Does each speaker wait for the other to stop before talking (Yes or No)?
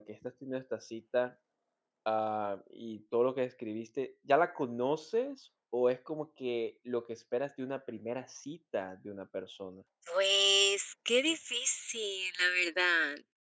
Yes